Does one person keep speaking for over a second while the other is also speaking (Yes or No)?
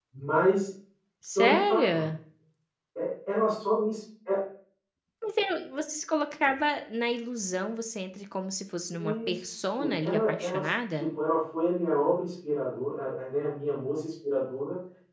Yes